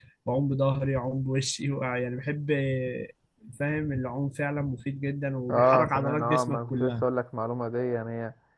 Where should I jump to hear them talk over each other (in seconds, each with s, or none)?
5.5 s